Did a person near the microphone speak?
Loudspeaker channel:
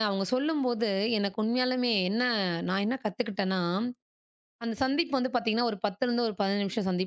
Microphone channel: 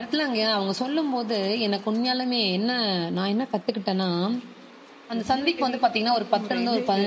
Yes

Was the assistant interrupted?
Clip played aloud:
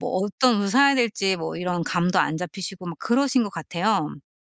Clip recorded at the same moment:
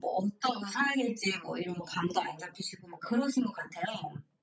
No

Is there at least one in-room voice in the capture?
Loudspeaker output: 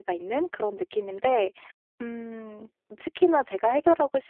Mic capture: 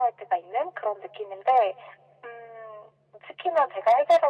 No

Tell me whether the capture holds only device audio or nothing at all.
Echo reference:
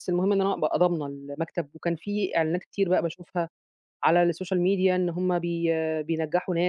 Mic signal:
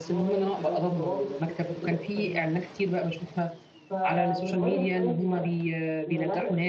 No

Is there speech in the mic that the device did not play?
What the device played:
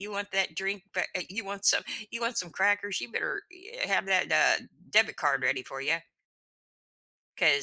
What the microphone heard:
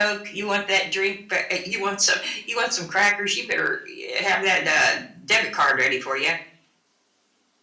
No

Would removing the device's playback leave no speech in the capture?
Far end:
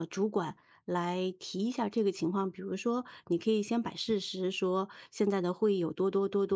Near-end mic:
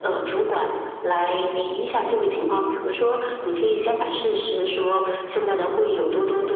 Yes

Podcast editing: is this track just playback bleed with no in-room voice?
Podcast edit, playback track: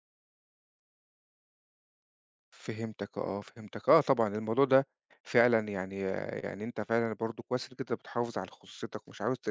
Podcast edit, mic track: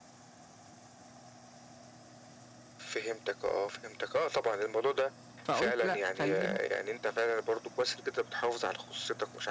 No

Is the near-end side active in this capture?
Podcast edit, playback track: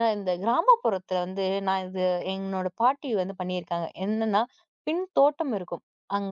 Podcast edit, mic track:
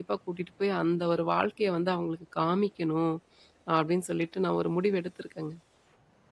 Yes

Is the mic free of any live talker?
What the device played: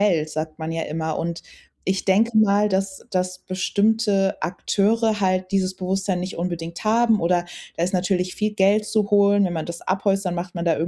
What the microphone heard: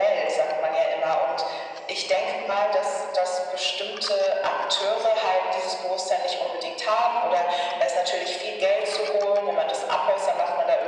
Yes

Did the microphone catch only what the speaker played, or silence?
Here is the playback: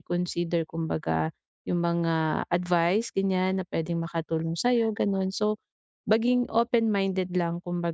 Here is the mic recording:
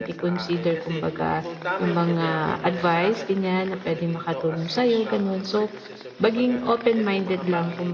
No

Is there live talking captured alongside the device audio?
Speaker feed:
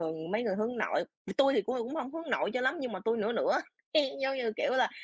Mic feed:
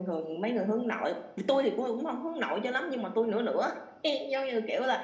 No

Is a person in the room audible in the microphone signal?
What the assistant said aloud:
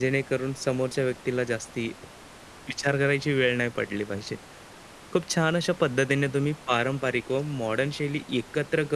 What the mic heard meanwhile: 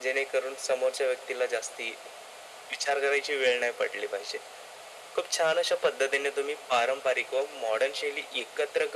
No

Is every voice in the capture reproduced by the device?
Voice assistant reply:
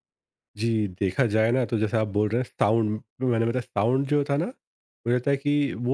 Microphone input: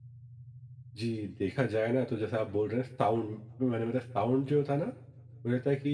Yes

